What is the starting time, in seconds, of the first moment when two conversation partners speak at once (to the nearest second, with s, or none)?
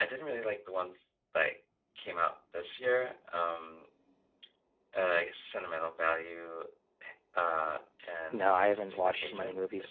8 s